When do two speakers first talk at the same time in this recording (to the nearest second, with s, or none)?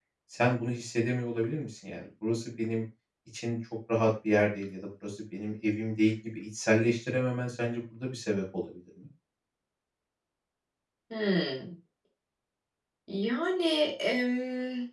none